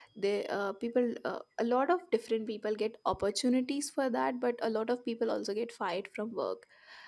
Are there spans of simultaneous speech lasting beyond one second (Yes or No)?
No